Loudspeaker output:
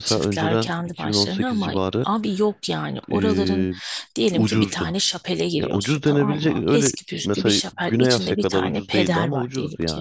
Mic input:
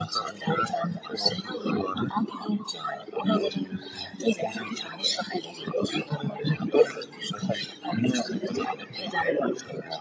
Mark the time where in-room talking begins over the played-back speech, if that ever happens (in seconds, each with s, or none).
none